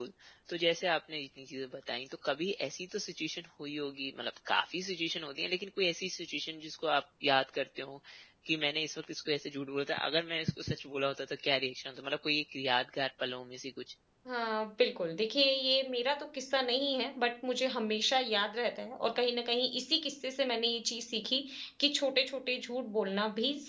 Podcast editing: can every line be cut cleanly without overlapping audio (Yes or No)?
Yes